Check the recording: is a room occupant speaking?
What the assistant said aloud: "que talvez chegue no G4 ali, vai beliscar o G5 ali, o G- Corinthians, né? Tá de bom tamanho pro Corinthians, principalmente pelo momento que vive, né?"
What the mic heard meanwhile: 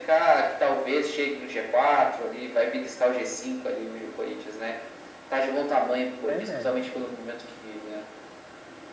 Yes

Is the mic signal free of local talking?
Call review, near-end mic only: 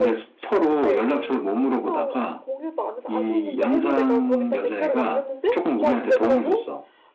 No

